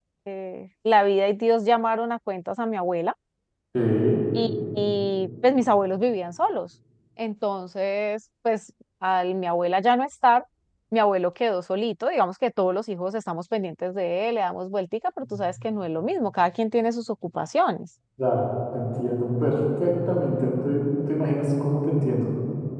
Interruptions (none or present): none